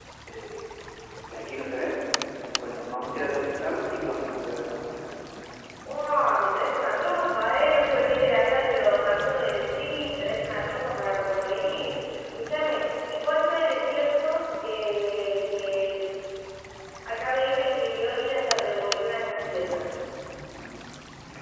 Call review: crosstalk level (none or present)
none